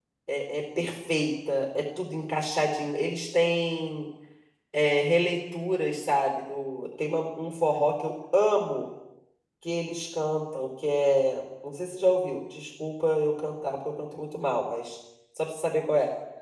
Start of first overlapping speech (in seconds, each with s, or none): none